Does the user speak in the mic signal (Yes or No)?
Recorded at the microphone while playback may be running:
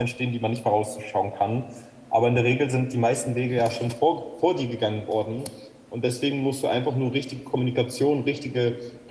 Yes